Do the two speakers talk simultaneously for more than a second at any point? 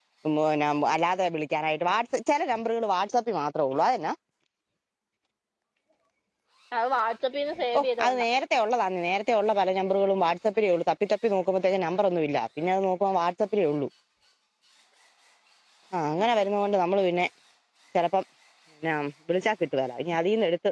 No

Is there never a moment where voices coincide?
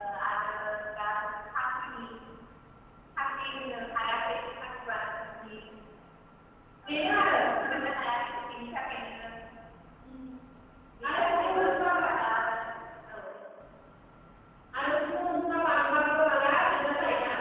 No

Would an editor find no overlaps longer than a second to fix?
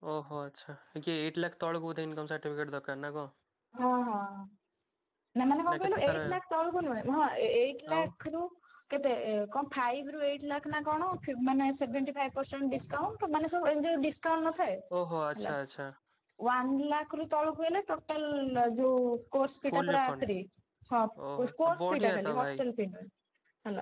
No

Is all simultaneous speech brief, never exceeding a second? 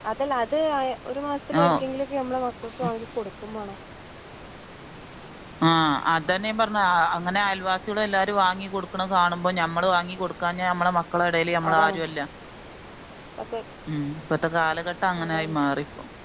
Yes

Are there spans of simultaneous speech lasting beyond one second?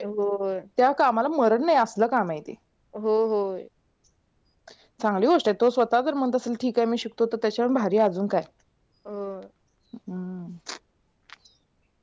No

